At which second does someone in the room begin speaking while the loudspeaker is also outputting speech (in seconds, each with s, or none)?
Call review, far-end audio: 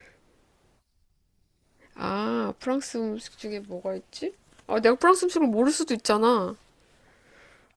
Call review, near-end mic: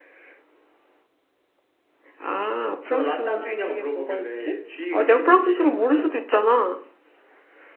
2.9 s